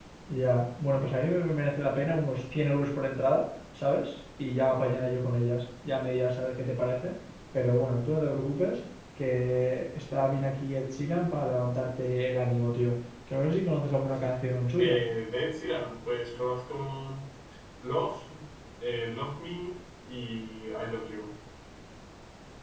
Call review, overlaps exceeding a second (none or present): none